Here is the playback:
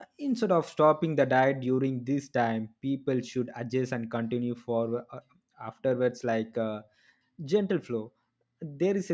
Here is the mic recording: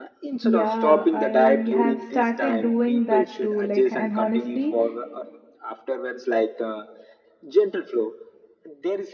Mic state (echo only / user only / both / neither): both